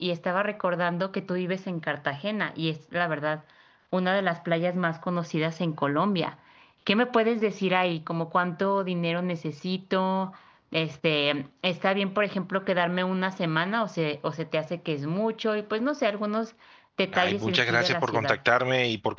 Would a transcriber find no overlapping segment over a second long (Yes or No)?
No